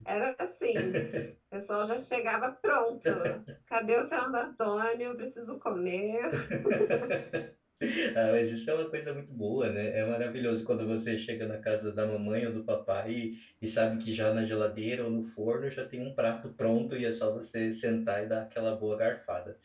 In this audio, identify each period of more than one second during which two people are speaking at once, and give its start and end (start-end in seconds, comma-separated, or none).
none